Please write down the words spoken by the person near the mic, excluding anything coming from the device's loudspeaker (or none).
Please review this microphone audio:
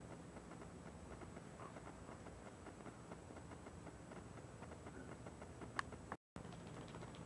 none